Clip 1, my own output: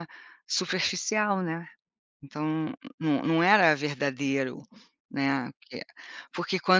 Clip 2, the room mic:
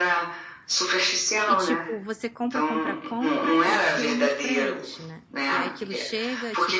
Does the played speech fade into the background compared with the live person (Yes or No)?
No